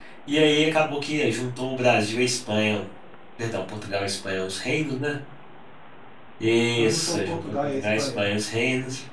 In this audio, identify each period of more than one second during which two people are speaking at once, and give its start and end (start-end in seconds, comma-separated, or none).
6.8-8.2